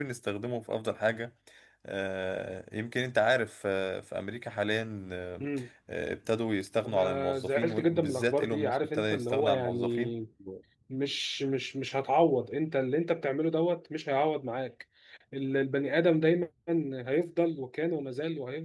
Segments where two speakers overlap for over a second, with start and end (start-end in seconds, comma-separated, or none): 6.8-10.1